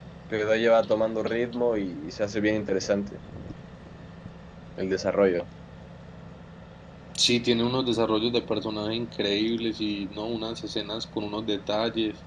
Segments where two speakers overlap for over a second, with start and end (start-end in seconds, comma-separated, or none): none